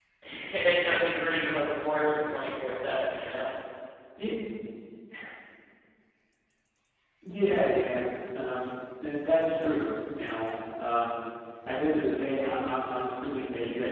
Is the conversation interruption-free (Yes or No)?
Yes